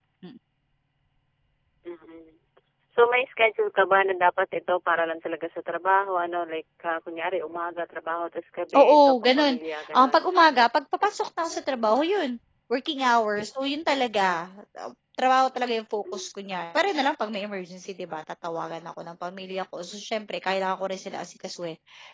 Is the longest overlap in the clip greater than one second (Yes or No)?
Yes